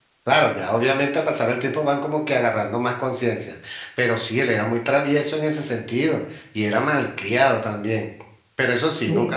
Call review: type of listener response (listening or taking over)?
listening